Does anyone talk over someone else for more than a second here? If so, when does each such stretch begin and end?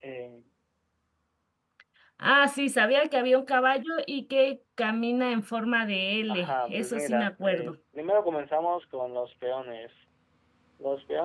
6.3-7.8

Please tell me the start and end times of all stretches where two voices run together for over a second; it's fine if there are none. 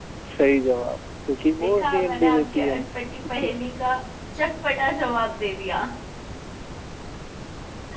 1.6-2.8

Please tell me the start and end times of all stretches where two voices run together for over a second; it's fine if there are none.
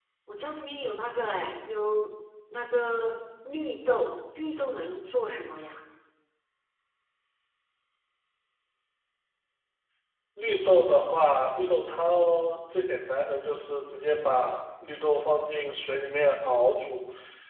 none

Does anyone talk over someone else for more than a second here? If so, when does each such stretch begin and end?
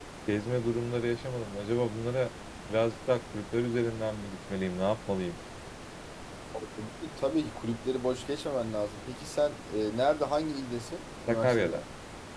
none

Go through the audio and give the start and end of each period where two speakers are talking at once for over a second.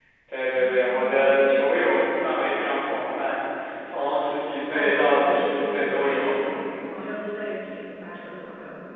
4.7-6.2

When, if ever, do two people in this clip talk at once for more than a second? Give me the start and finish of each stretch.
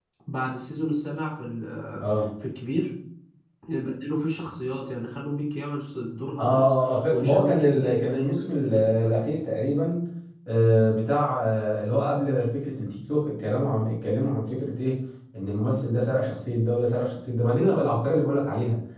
6.4-9.1

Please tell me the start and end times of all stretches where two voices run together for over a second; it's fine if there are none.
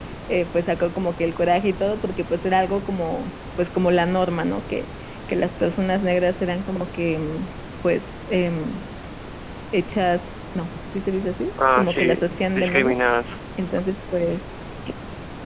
11.7-13.0

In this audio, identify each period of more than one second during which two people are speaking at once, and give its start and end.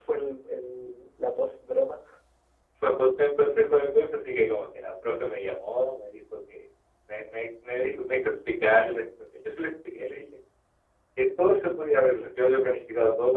none

